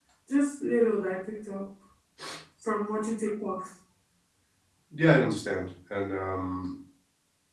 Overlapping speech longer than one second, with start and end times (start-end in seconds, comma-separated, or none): none